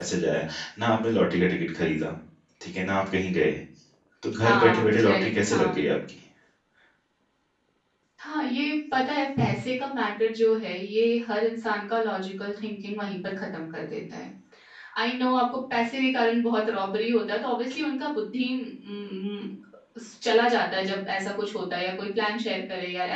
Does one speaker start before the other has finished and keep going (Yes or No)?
Yes